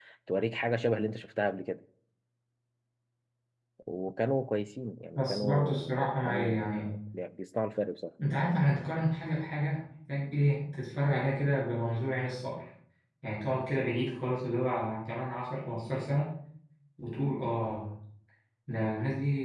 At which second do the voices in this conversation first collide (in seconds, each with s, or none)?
5.2 s